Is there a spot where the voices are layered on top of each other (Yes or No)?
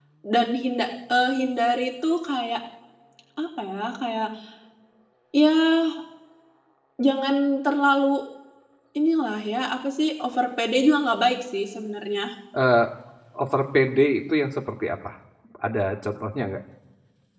No